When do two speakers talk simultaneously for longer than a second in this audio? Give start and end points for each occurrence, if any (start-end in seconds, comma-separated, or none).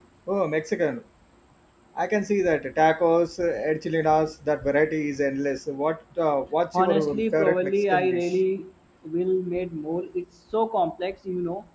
6.7-8.3